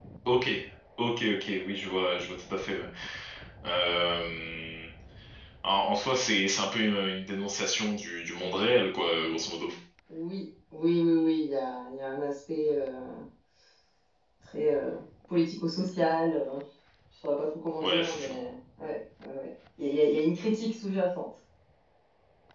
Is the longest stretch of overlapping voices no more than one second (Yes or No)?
Yes